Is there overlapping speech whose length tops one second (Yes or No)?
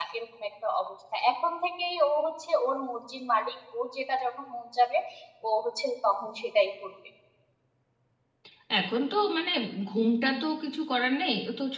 No